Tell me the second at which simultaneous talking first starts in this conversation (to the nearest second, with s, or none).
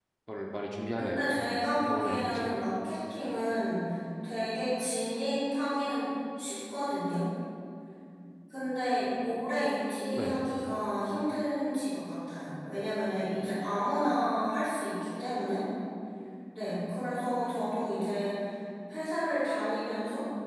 1 s